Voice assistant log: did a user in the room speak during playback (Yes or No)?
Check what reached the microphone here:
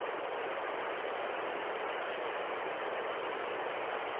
No